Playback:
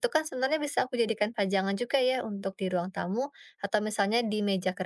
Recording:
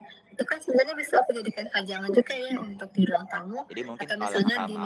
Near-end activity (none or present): present